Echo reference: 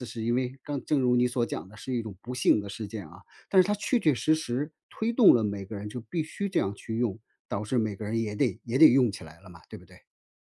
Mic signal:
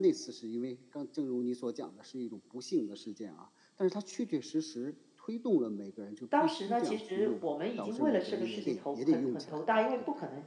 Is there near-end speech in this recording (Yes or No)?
Yes